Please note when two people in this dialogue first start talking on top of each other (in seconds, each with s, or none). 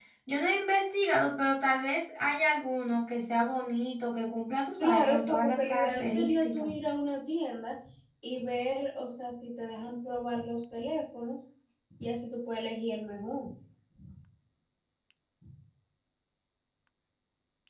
4.8 s